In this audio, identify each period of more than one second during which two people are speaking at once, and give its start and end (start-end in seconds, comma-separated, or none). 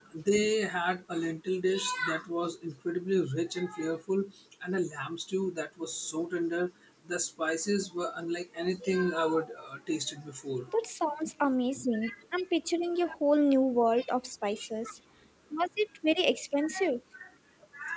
none